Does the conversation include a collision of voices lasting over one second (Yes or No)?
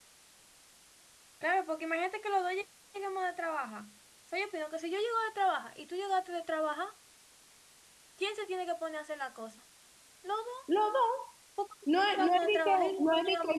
Yes